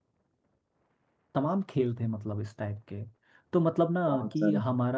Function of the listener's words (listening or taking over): listening